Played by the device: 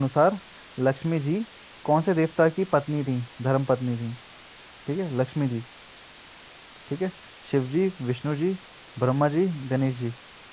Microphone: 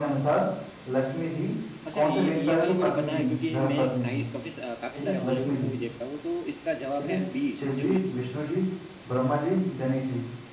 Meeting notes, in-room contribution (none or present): present